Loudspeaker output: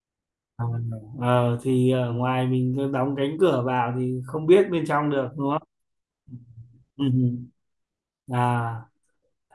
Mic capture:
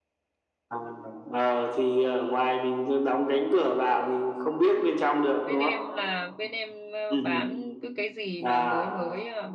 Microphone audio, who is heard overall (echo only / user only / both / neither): both